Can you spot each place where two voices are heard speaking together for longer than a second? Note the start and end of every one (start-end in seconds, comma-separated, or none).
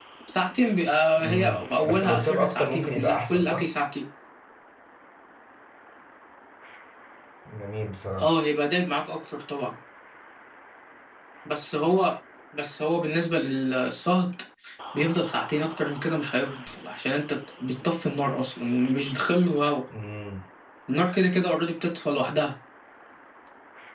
1.2-3.6